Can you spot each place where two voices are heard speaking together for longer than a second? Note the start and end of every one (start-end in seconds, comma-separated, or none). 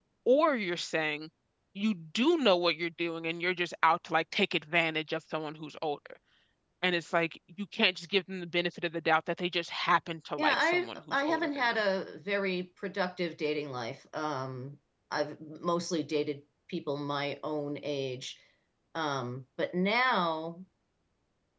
10.4-11.8